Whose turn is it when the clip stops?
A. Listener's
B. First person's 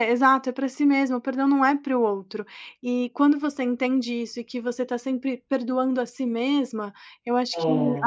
B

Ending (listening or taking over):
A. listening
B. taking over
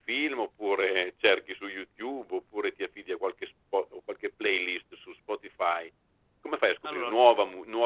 A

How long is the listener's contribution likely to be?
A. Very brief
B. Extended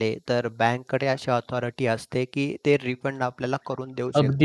B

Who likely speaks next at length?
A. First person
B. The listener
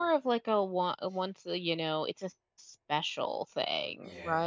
B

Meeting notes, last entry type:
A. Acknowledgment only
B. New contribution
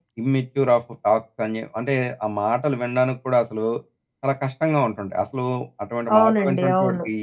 B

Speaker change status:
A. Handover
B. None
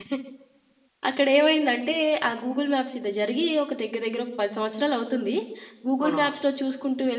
B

